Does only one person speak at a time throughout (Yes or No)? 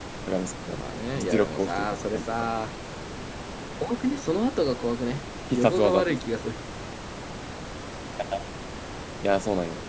No